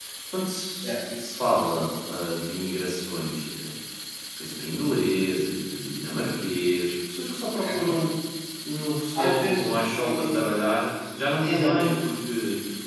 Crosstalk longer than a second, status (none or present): present